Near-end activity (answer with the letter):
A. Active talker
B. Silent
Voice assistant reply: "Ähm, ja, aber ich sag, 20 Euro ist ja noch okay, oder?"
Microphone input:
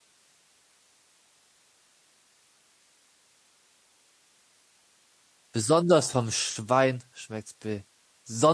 A